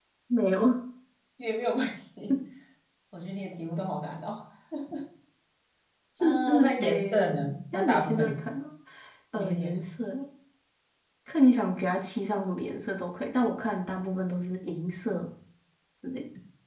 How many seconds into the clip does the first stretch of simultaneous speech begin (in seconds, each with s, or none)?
6.2 s